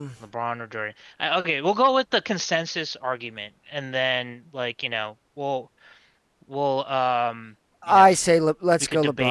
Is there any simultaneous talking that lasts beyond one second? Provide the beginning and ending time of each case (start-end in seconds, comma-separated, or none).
none